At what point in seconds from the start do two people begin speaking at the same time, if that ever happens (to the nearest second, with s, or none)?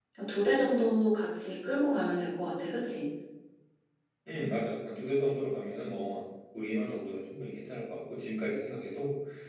none